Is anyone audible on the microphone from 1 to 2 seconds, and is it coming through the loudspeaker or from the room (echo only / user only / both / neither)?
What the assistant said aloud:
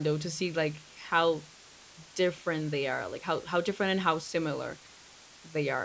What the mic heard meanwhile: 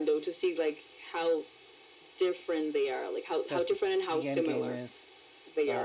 echo only